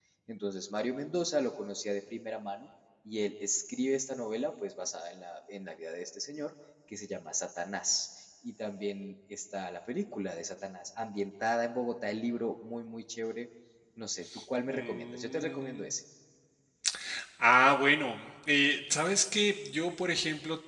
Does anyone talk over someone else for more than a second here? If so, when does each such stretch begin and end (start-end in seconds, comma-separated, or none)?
14.7-15.9